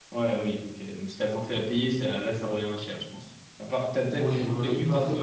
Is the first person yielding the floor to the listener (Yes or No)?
Yes